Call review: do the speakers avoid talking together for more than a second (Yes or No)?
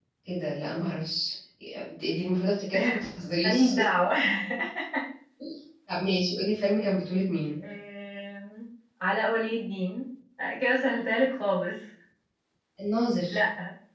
Yes